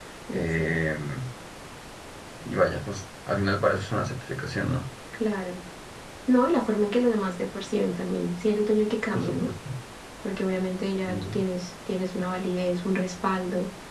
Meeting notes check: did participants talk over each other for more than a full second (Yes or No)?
No